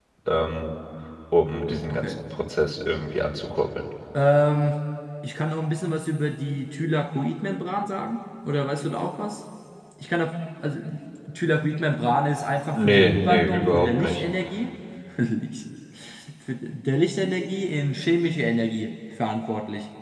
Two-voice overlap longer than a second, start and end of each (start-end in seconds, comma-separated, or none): 12.7-14.2